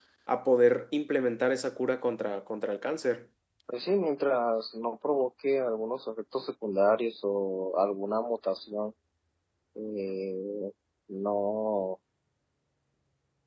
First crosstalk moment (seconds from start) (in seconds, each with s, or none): none